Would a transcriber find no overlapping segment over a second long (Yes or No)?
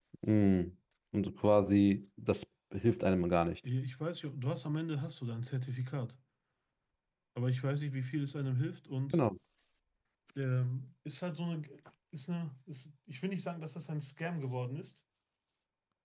Yes